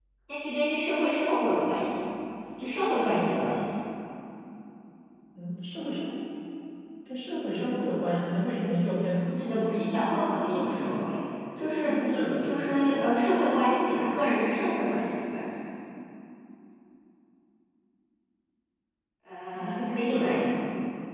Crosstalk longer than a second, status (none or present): present